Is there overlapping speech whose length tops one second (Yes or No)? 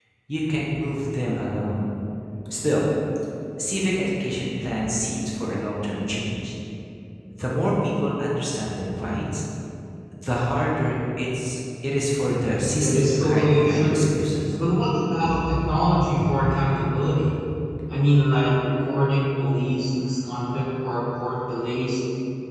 Yes